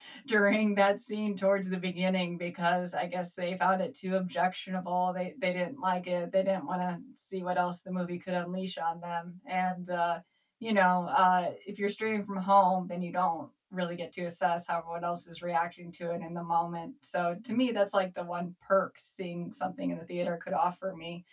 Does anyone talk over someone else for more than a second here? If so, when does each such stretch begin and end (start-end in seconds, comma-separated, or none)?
none